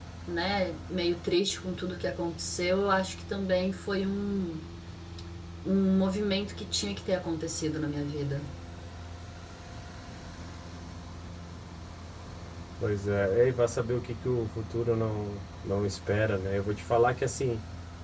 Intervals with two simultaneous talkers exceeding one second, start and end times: none

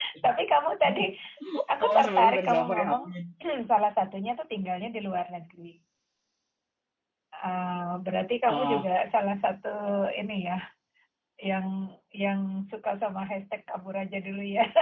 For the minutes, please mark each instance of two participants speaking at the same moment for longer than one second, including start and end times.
1.8-3.0

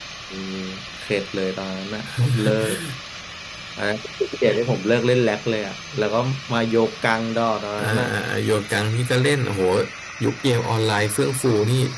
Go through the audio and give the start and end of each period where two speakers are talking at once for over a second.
none

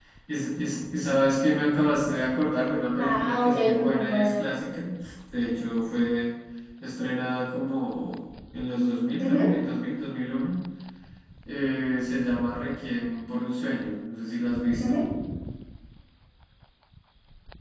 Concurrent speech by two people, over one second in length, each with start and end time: 3.0-4.4

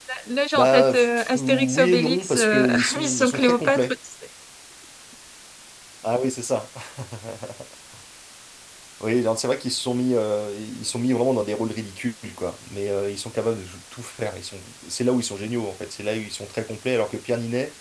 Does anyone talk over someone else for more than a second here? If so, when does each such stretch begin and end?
0.5-3.8

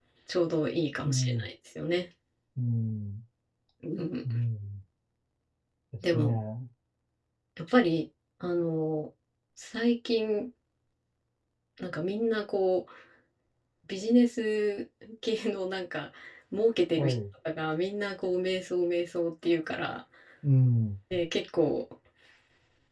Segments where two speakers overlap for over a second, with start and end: none

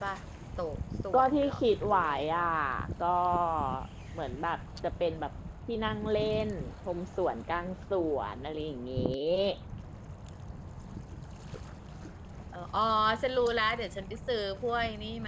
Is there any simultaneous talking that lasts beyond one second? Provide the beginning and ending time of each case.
1.1-2.5

